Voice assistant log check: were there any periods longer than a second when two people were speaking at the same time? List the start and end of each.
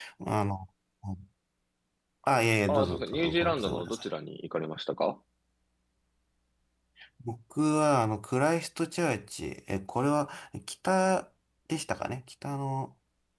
2.7-4.0

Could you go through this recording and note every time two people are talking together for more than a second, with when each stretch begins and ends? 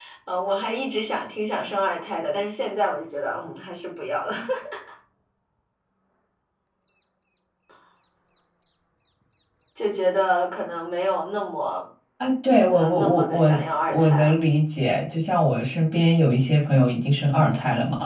12.7-14.3

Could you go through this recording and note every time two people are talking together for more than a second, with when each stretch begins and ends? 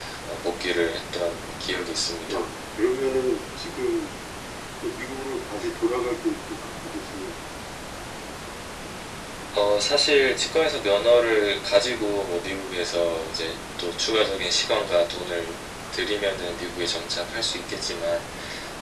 none

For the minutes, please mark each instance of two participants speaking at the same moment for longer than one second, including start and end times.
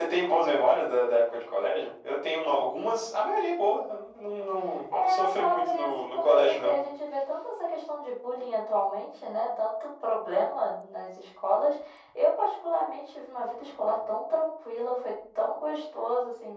5.0-6.7

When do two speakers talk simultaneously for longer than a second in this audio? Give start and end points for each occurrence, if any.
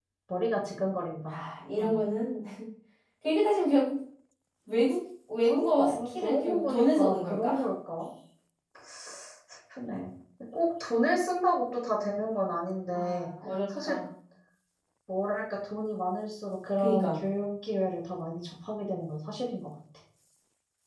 5.5-7.5

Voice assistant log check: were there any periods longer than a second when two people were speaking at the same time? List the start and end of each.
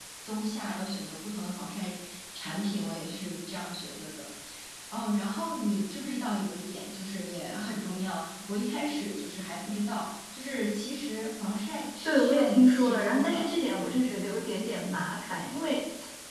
12.0-13.5

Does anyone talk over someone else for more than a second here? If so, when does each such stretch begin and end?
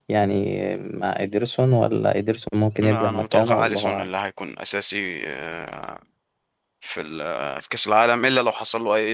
2.8-4.1

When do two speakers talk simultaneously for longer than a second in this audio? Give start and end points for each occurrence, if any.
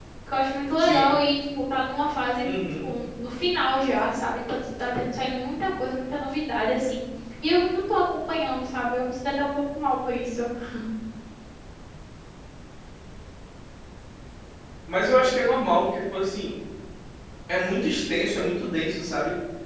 none

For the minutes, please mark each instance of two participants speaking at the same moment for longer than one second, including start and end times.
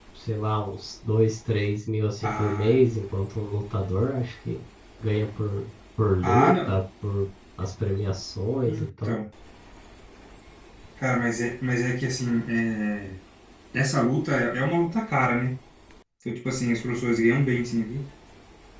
none

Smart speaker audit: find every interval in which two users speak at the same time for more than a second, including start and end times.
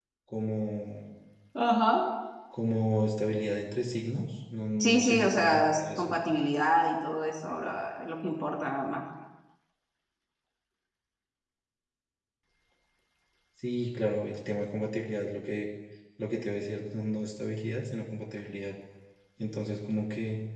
4.8-6.1

